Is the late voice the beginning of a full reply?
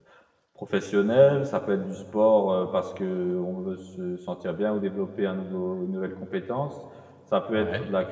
No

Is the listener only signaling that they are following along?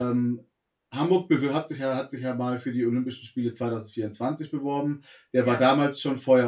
Yes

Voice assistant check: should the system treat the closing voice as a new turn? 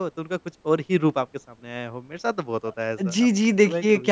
Yes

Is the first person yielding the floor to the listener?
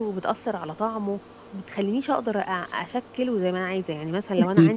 Yes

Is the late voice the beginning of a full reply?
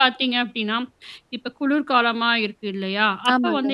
No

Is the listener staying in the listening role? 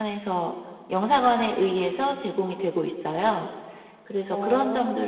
Yes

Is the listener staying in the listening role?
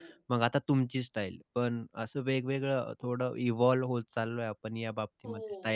No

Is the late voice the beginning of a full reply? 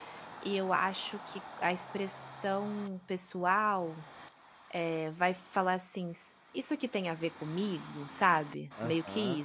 Yes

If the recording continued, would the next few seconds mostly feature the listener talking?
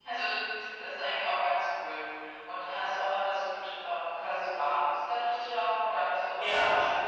Yes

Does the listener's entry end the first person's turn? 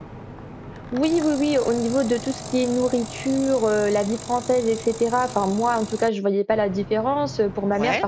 No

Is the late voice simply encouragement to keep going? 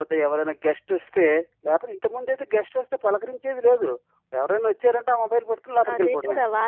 No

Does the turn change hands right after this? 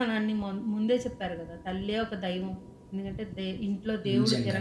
No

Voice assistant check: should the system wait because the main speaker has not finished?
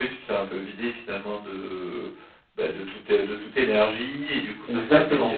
Yes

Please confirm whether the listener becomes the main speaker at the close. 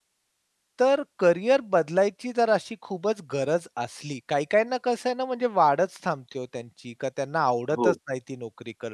No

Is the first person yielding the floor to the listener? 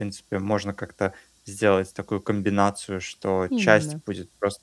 No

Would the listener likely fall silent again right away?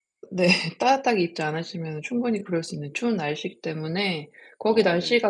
Yes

